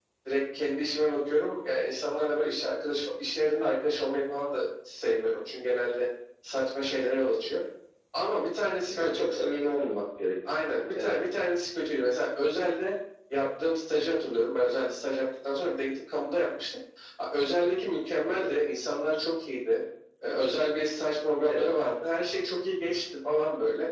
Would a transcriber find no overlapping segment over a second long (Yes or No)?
Yes